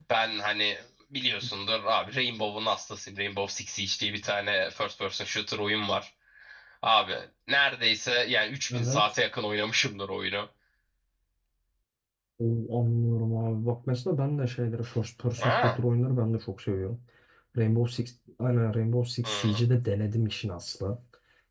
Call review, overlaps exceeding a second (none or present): none